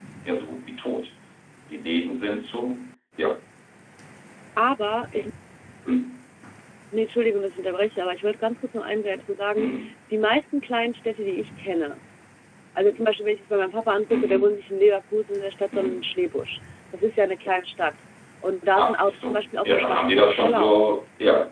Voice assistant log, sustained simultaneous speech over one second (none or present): present